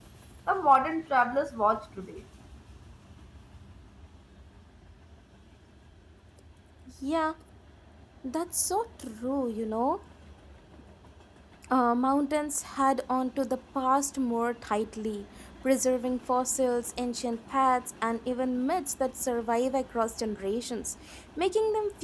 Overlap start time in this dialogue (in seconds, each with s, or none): none